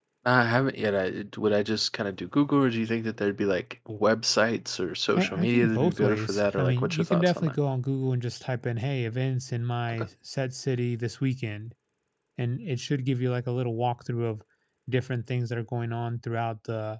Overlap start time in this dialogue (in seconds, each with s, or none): 5.2 s